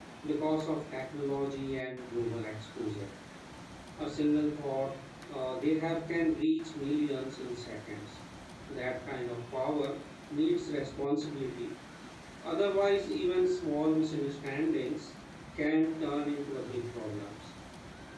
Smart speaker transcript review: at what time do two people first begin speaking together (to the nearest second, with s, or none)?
none